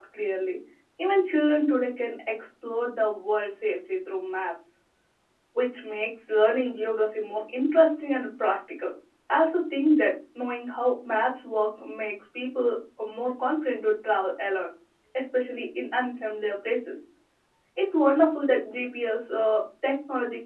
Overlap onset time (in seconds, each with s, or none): none